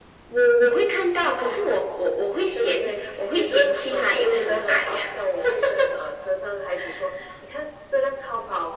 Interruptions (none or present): present